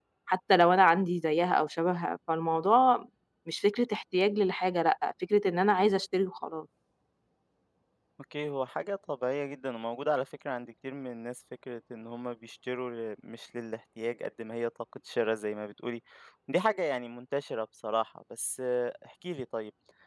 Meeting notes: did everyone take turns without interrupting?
Yes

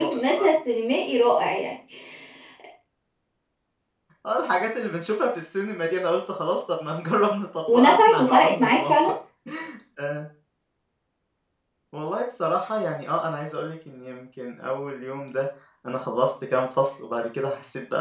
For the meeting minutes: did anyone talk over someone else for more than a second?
Yes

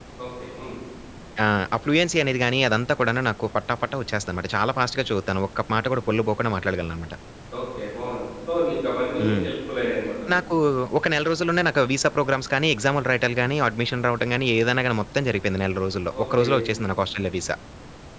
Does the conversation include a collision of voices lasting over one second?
No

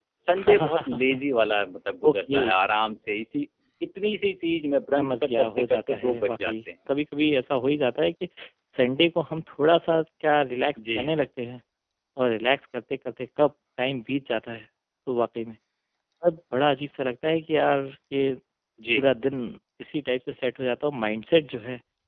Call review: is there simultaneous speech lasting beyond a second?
Yes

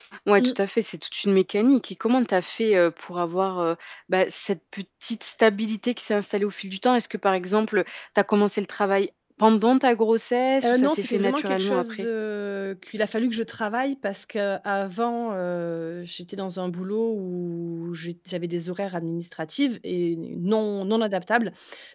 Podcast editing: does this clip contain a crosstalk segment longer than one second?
Yes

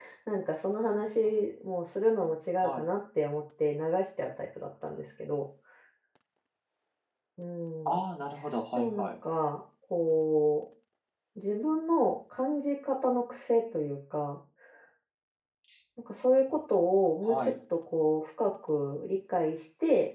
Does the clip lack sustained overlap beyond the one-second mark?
Yes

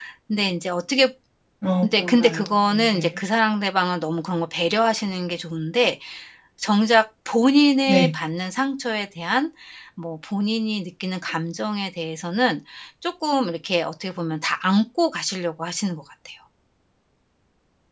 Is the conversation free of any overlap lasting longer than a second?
No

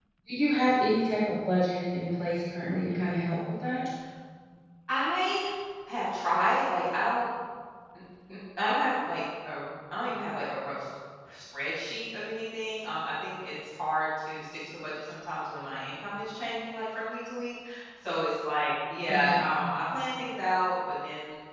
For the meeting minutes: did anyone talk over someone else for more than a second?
No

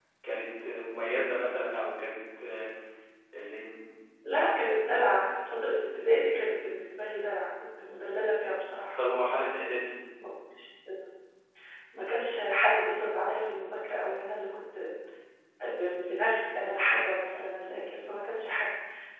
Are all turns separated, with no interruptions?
Yes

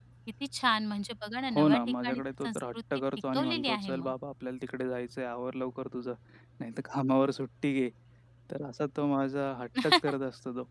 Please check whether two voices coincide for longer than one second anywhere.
Yes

